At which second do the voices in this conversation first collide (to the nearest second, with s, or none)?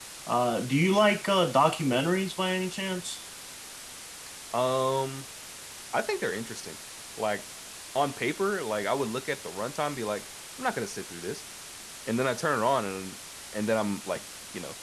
none